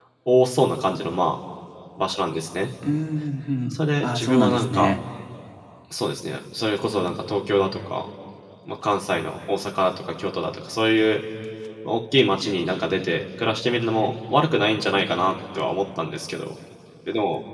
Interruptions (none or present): present